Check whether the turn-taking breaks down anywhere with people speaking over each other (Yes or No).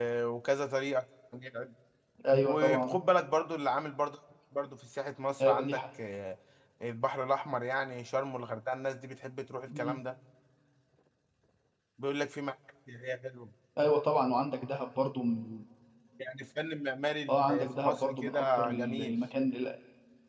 Yes